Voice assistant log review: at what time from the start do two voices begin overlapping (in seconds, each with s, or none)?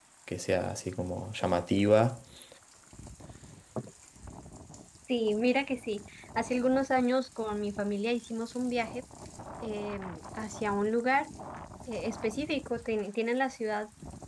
none